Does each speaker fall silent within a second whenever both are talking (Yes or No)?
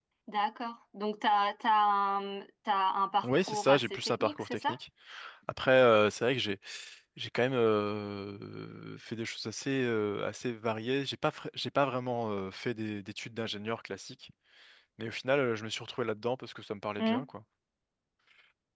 No